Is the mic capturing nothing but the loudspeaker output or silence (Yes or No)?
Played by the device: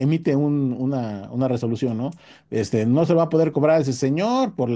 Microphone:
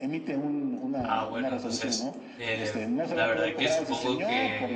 No